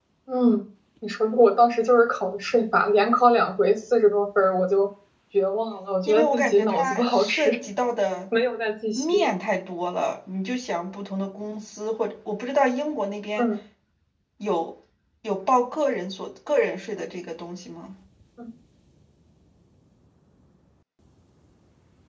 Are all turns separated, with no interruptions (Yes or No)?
No